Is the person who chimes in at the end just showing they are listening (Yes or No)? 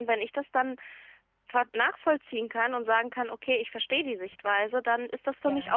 Yes